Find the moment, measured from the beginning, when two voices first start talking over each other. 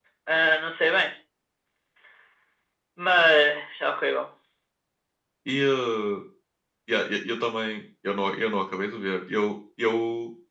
none

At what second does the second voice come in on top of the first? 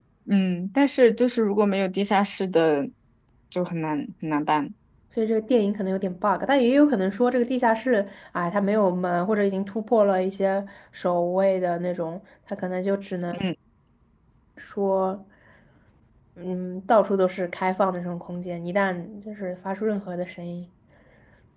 none

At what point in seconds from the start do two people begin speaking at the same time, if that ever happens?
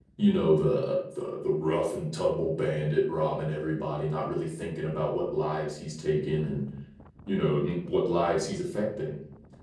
none

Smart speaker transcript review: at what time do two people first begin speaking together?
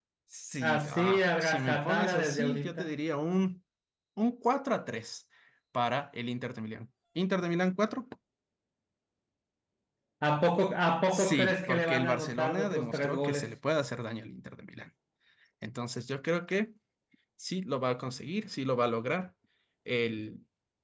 0.6 s

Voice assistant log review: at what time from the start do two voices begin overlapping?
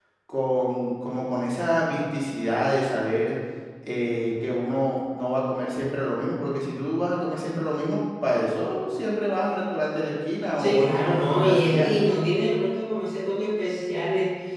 10.6 s

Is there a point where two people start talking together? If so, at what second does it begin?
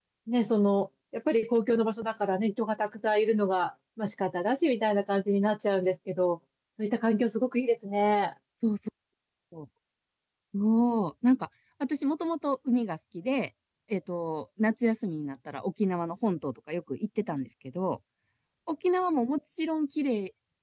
none

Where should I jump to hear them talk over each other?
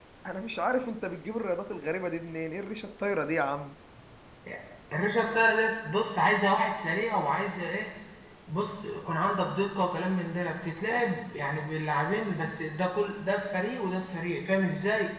none

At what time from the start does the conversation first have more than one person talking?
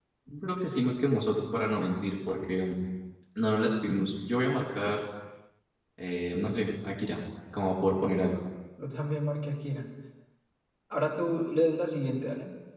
none

